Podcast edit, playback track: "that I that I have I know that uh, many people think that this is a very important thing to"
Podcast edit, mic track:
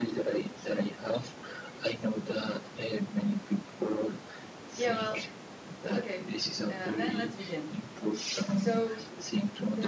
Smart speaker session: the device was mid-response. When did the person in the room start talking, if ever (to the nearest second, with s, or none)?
5 s